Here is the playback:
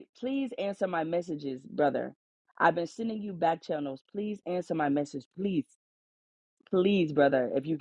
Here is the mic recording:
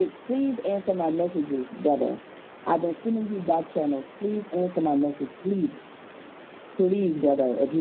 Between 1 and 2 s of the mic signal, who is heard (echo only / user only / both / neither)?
echo only